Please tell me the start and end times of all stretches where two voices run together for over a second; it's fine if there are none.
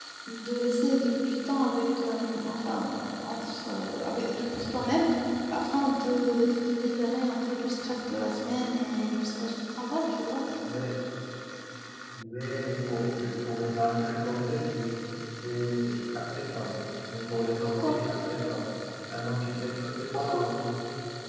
none

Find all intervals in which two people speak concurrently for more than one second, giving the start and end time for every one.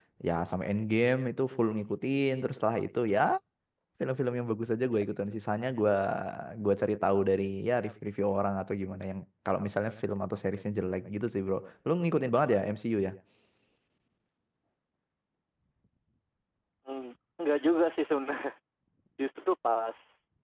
none

